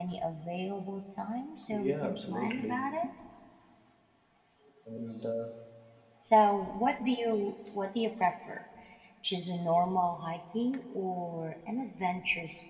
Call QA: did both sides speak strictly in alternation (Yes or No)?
No